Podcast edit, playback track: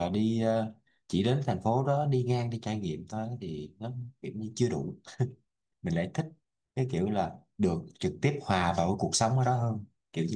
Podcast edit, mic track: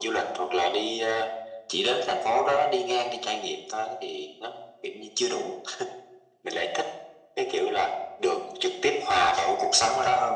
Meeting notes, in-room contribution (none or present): none